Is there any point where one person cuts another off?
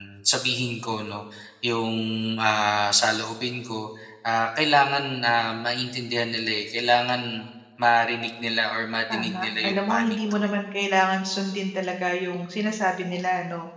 Yes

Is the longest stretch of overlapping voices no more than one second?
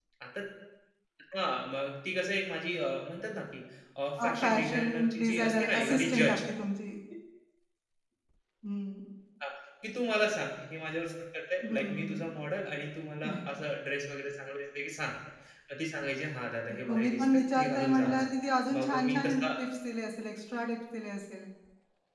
No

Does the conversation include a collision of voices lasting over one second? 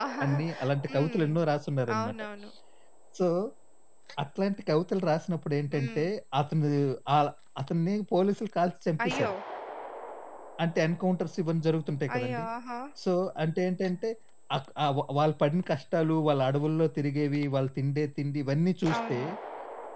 No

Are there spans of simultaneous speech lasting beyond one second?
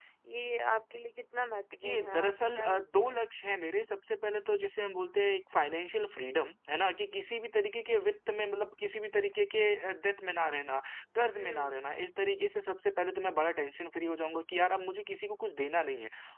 Yes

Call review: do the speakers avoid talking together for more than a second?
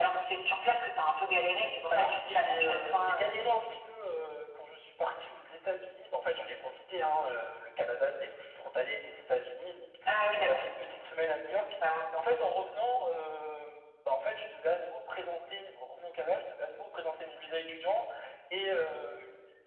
No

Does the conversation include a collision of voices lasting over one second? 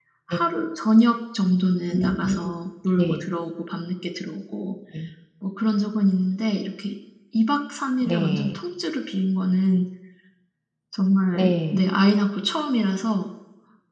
No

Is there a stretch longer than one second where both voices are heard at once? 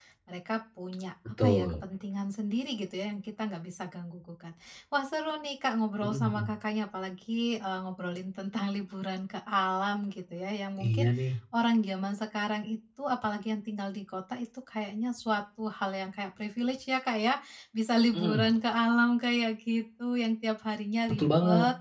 No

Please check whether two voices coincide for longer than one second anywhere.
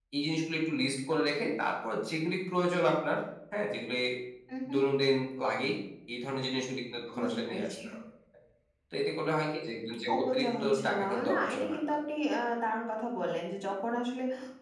Yes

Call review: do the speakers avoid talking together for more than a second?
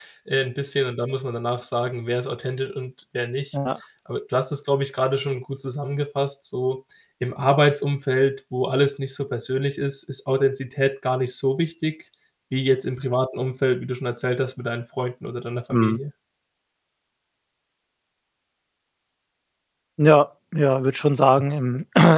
Yes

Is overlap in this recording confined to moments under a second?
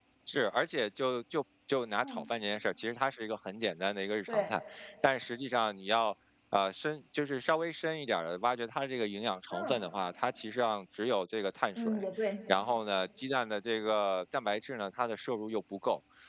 Yes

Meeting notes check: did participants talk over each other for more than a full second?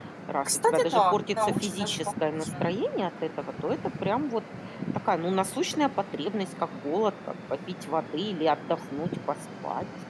Yes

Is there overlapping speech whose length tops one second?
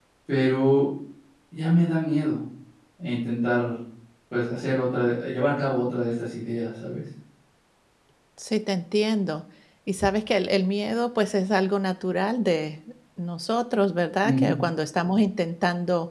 No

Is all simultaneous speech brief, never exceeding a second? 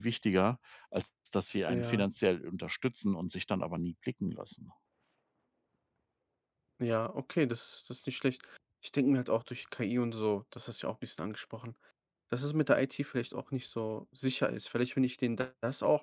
Yes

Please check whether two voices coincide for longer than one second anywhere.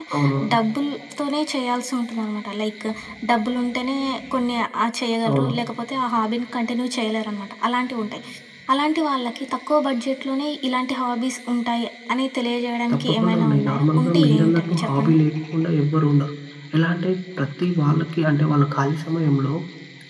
Yes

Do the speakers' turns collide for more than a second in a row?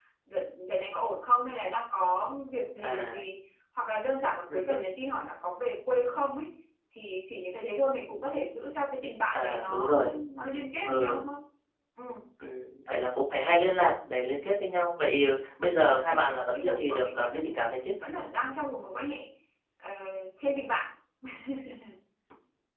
Yes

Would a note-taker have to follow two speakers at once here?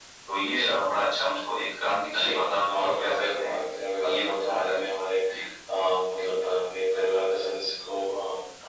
Yes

